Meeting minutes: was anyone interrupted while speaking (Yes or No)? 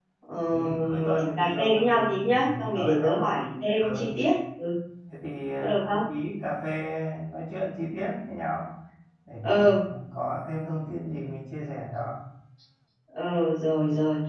Yes